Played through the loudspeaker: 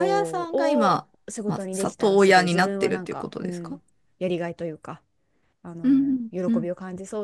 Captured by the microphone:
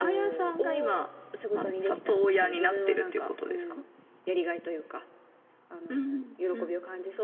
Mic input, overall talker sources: echo only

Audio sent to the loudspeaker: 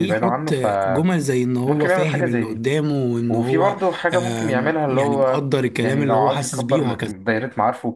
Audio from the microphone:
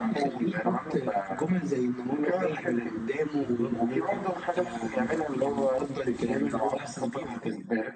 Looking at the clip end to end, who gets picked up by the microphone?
both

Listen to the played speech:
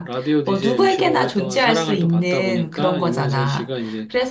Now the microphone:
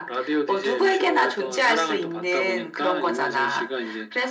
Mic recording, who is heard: echo only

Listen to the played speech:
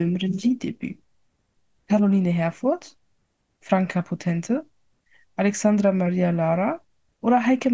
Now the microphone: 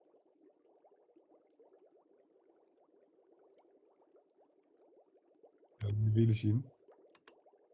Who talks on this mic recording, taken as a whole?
user only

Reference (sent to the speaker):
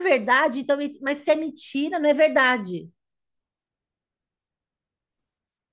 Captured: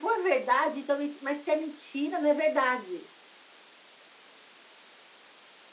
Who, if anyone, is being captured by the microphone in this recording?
echo only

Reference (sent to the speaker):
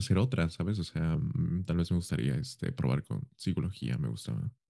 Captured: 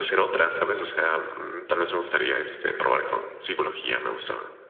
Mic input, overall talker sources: echo only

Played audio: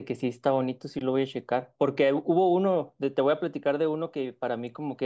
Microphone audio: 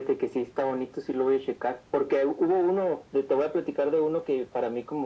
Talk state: echo only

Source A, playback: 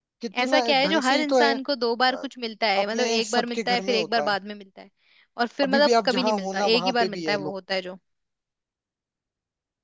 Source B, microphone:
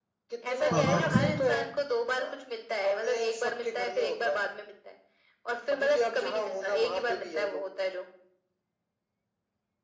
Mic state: both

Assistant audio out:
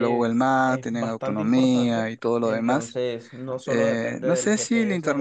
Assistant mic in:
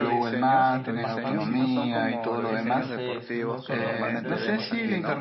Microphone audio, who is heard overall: both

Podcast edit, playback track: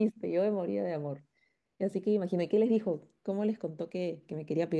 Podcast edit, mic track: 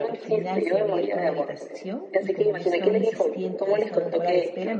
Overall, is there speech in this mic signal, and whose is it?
both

